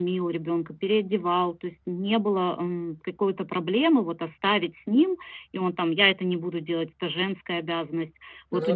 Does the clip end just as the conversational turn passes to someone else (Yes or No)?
No